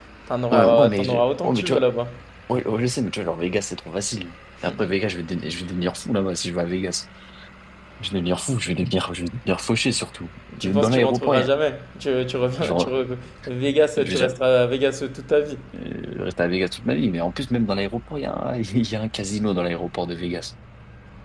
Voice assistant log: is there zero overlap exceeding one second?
No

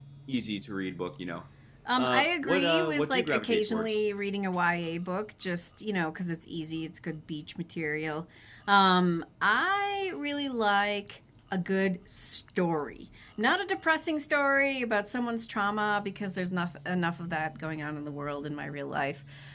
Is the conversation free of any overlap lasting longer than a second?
No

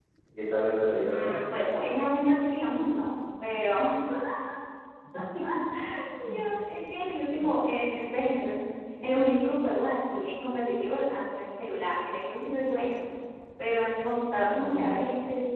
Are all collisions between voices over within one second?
Yes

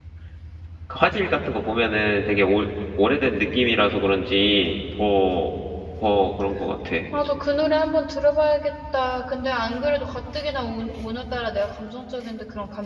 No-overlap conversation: Yes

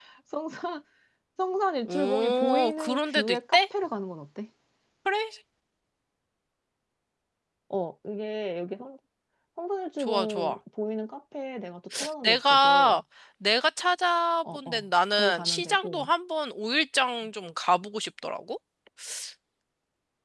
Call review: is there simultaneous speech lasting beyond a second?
Yes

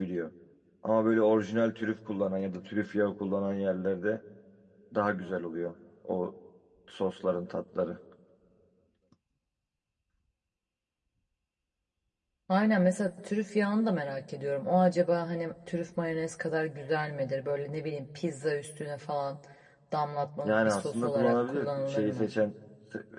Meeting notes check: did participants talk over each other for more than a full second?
Yes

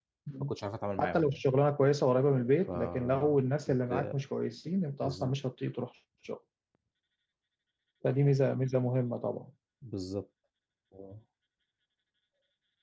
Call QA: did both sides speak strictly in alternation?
No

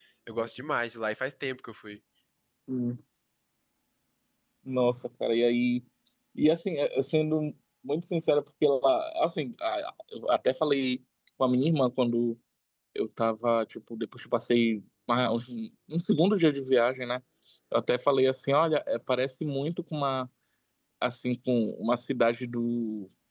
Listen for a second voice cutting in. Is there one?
No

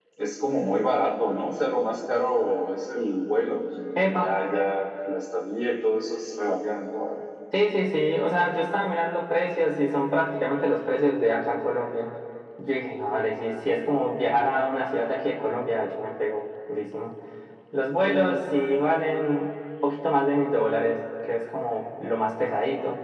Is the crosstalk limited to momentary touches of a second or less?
Yes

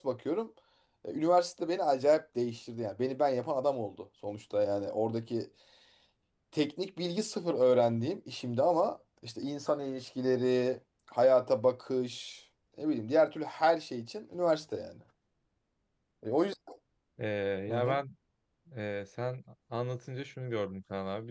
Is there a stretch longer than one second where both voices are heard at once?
No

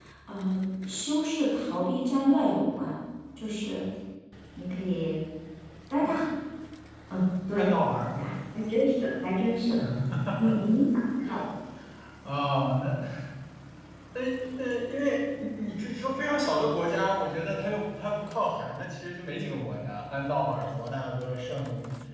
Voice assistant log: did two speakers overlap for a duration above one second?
No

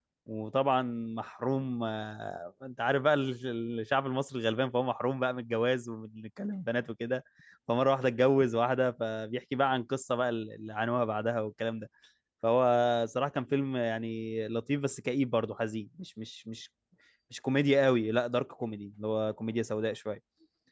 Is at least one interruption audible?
No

